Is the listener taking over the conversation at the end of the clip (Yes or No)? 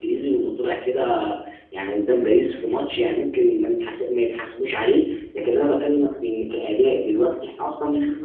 Yes